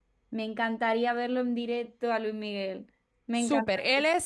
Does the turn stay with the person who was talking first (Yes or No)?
No